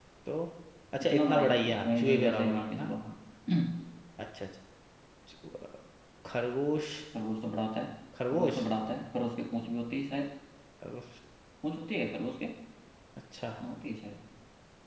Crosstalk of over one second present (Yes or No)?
Yes